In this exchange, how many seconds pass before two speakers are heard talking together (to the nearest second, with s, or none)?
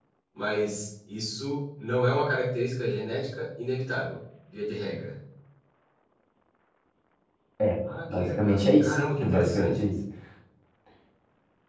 8 s